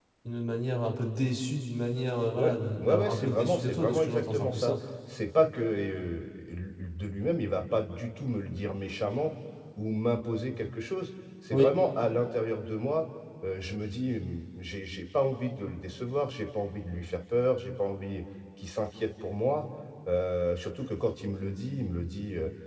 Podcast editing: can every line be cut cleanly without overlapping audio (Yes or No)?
No